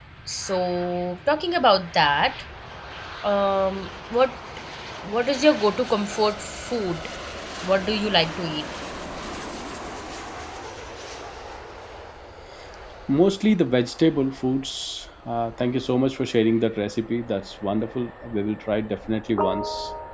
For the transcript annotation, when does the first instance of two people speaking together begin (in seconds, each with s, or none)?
none